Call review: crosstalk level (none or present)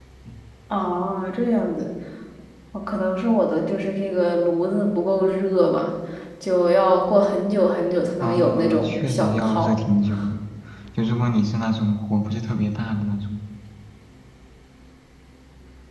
present